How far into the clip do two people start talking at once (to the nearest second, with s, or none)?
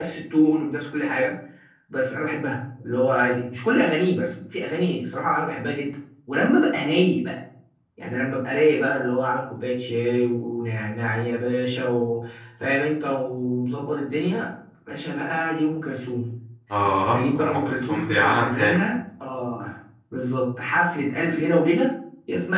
17 s